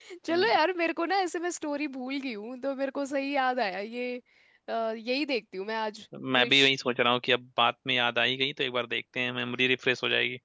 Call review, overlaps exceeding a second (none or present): none